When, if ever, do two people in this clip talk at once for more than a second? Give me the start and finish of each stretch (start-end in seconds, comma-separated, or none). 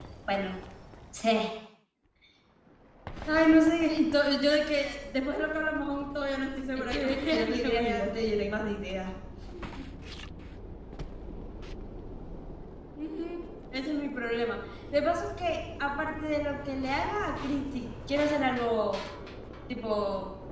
6.8-8.3